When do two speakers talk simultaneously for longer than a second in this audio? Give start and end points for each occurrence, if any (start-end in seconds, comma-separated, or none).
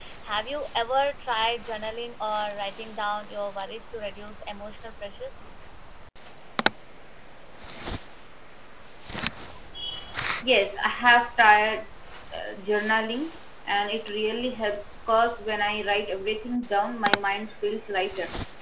none